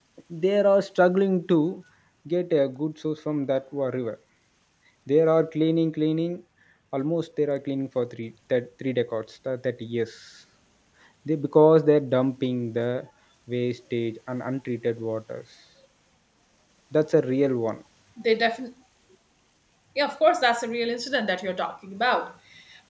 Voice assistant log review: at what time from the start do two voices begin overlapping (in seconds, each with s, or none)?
none